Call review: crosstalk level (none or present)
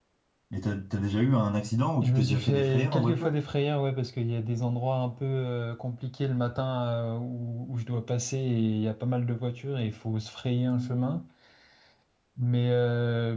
present